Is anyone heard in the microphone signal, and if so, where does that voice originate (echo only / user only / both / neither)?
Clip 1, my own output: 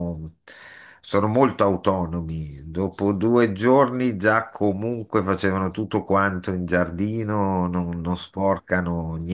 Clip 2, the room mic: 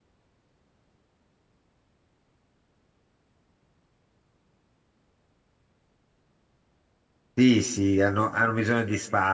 user only